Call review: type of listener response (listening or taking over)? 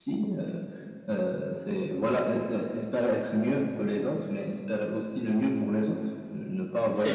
listening